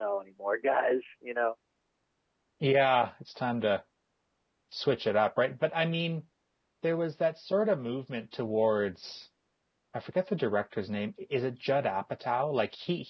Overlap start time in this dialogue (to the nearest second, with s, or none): none